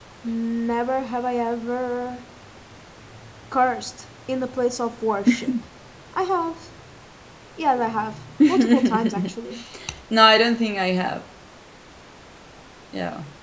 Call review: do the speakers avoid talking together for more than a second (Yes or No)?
No